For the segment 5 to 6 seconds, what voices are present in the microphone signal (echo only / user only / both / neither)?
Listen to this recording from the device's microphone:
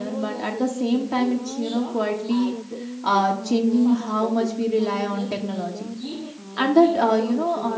both